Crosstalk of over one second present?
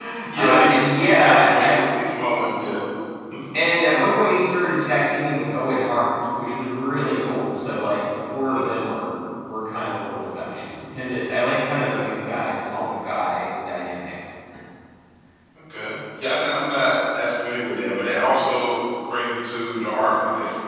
Yes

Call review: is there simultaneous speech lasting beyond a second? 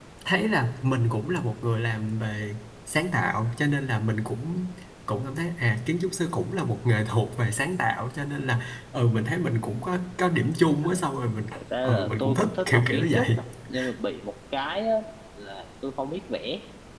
Yes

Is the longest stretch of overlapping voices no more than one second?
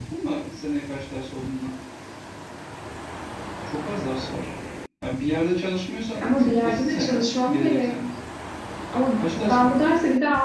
No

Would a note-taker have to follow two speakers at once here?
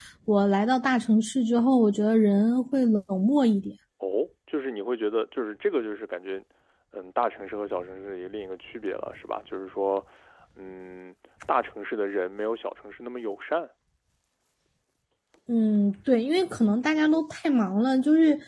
No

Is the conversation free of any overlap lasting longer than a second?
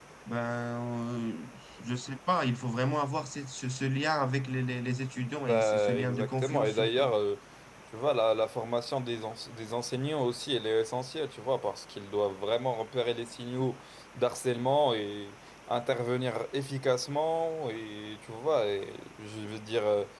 No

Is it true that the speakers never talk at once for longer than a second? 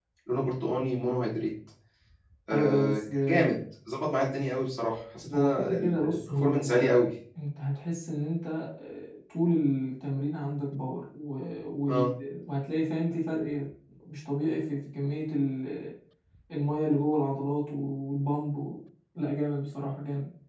No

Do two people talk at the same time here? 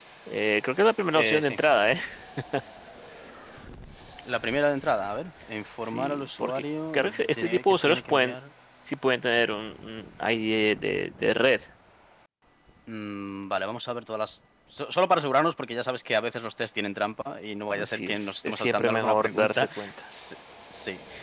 Yes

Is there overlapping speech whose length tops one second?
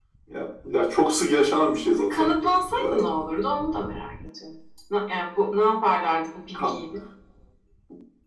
No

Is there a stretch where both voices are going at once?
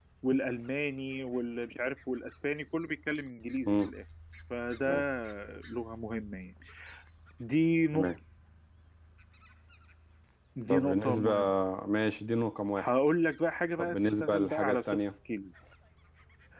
Yes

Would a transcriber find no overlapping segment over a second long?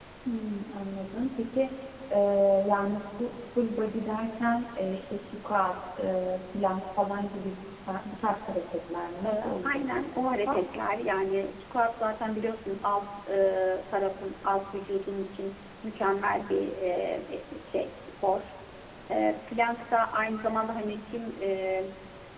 No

